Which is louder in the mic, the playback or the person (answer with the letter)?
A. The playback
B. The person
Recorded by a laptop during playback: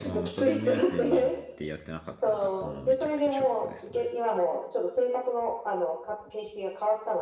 A